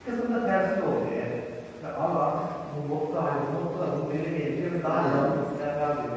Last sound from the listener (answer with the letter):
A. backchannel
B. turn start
A